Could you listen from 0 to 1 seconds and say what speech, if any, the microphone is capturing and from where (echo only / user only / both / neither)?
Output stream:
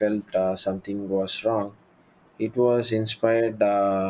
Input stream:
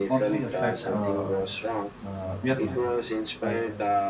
both